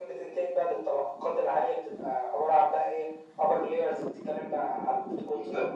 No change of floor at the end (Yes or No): No